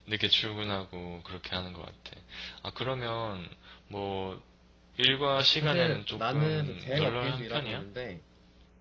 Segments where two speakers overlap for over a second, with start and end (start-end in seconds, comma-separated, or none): 5.6-7.8